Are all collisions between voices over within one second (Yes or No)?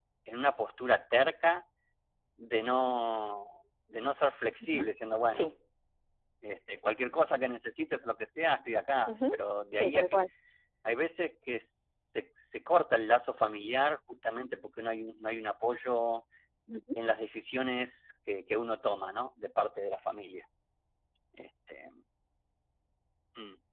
Yes